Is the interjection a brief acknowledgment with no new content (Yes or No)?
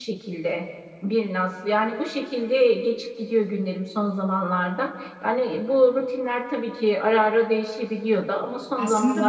No